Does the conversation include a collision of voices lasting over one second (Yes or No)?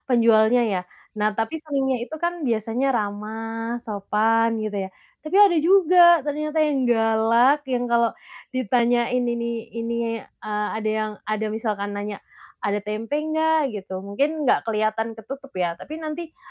No